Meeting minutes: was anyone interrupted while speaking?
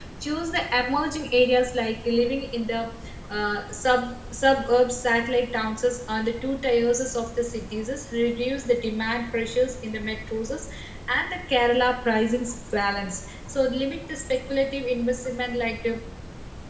No

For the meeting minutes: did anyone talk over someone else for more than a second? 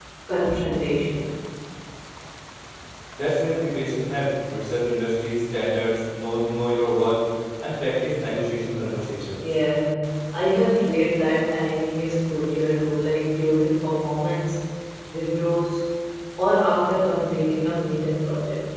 No

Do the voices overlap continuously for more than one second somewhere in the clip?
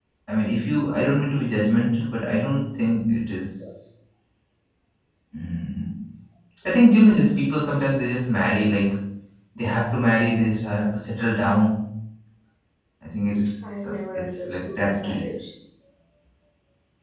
Yes, from 13.8 s

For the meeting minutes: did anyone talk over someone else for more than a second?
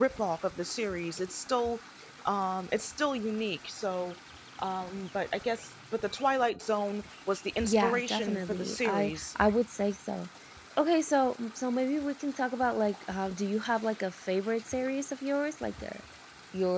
Yes, from 7.6 s

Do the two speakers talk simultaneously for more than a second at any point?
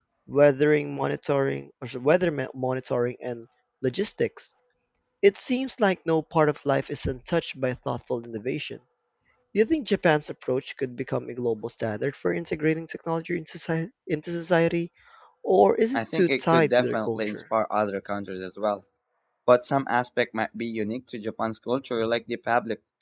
Yes, from 15.9 s

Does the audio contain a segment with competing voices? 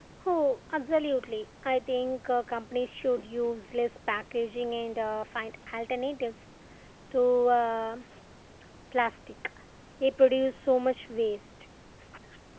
No

